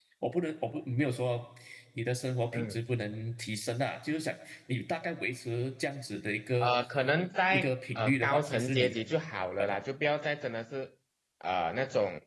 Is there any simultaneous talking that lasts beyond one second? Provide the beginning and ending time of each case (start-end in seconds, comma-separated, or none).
7.5-9.0